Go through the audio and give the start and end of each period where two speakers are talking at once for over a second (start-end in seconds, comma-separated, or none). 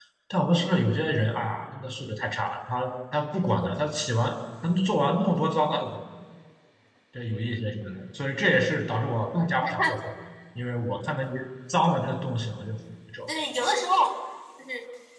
none